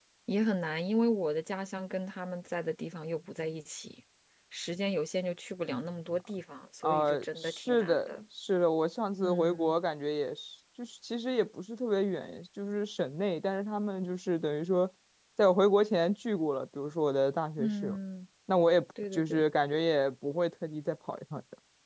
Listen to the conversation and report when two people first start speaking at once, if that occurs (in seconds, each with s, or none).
6.8 s